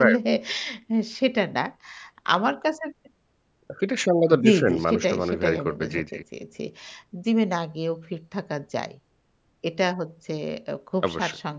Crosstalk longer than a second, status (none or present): present